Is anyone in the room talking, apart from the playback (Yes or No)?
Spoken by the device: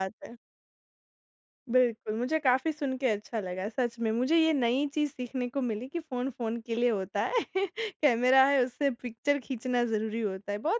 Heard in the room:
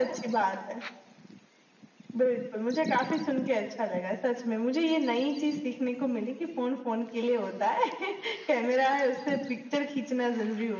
No